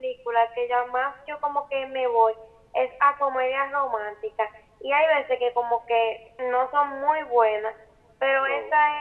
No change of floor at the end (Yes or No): Yes